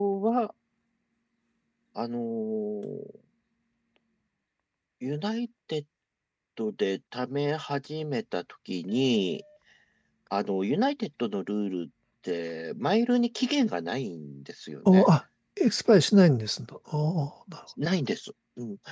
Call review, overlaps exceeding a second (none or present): none